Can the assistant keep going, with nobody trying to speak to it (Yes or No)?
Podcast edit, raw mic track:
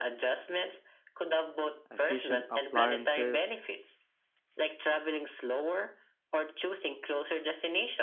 No